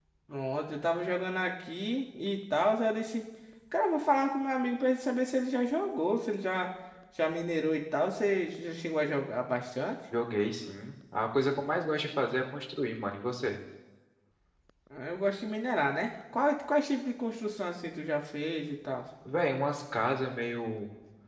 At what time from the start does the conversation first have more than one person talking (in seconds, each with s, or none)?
none